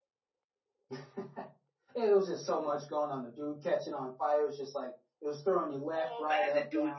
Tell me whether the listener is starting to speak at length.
Yes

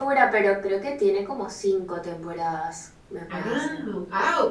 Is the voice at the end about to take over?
Yes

